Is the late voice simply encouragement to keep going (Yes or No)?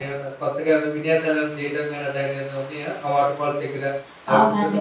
No